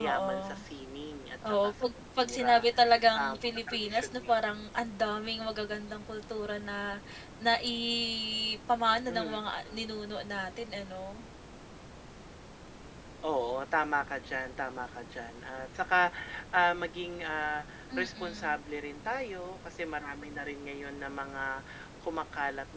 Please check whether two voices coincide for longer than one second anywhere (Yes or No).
Yes